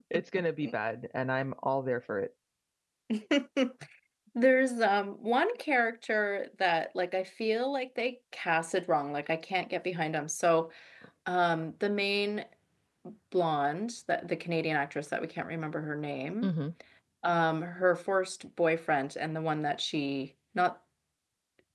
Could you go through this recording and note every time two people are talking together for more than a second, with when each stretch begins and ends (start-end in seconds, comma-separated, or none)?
none